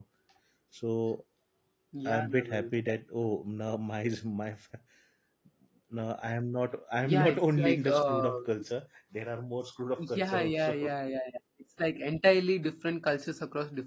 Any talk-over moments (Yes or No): Yes